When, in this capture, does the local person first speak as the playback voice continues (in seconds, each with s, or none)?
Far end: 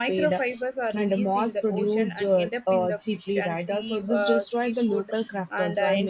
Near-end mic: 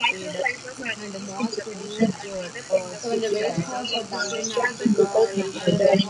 3.0 s